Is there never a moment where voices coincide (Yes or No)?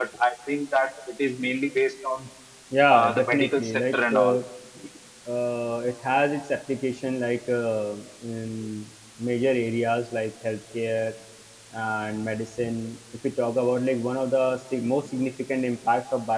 No